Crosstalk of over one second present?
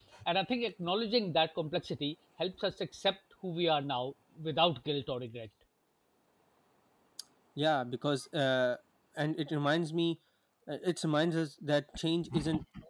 No

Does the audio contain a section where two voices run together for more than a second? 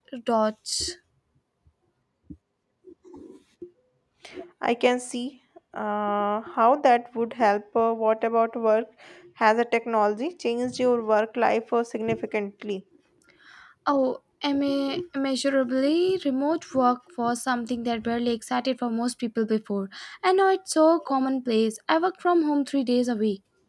No

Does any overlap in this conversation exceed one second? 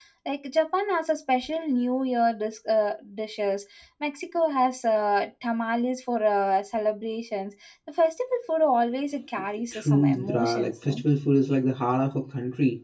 Yes, from 9.7 s

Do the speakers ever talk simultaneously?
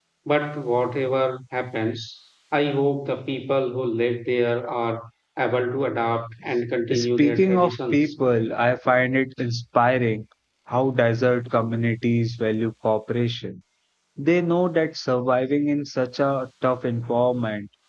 Yes, from 6.9 s

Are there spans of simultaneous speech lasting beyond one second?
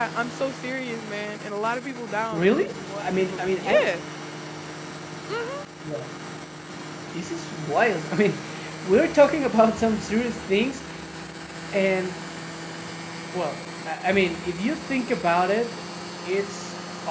Yes, from 2.3 s

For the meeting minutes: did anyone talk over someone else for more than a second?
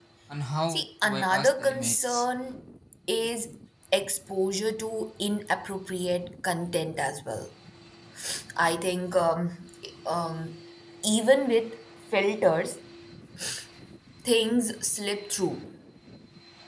Yes, from 0.7 s

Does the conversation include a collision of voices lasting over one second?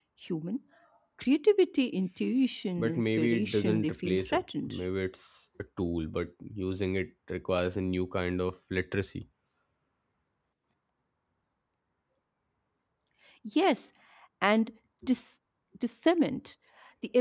Yes, from 2.8 s

